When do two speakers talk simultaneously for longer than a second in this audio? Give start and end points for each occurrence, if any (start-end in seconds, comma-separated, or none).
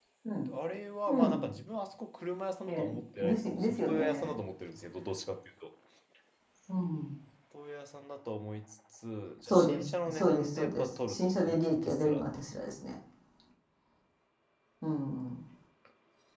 2.7-4.4, 9.5-12.2